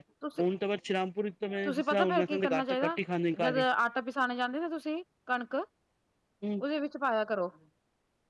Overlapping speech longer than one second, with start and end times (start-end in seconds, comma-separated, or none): 1.6-2.9